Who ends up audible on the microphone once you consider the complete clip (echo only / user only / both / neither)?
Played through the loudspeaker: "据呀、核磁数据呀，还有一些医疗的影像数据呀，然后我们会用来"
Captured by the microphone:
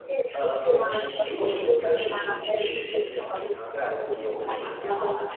both